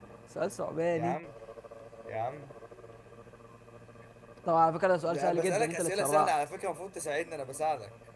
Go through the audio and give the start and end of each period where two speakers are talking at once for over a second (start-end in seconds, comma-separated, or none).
5.0-6.3